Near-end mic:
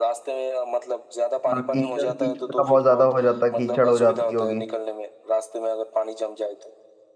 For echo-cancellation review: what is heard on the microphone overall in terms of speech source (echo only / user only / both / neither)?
both